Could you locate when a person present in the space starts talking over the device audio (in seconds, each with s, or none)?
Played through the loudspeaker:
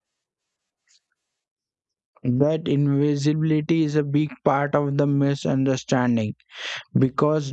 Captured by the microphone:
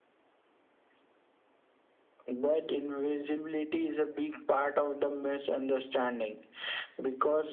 none